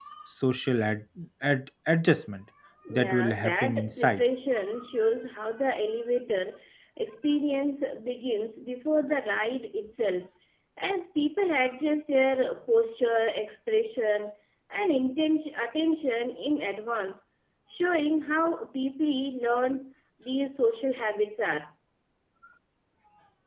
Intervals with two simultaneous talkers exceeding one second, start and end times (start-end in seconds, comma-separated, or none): 2.9-4.3